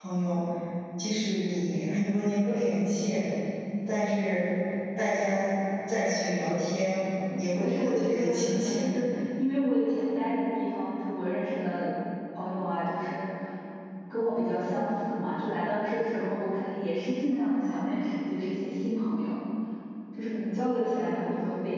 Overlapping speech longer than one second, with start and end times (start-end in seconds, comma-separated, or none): 7.4-8.9